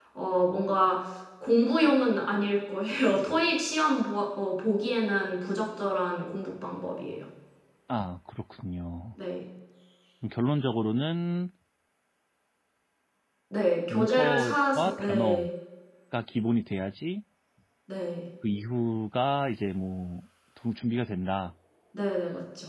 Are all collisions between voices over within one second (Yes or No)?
No